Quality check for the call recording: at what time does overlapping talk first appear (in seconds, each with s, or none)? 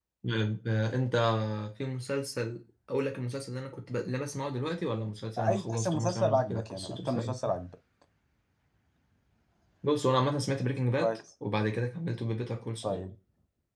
5.4 s